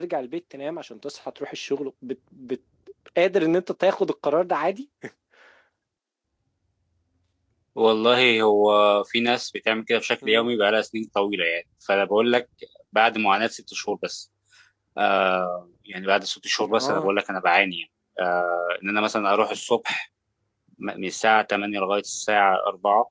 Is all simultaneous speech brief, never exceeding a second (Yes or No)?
Yes